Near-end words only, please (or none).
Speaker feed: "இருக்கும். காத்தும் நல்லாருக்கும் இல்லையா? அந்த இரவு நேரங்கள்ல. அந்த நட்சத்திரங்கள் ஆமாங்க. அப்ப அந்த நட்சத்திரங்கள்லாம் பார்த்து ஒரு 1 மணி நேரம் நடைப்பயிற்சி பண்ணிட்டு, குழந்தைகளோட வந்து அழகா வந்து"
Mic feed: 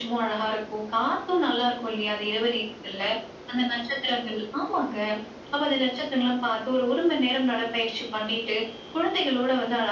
none